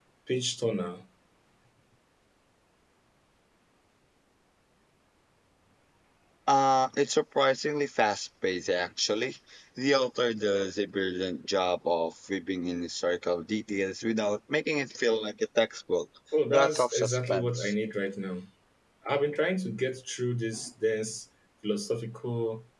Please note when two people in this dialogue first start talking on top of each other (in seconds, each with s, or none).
16.5 s